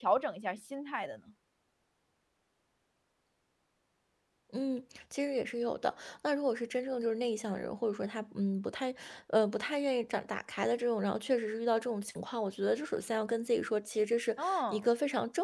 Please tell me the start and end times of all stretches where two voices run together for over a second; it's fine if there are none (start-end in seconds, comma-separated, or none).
none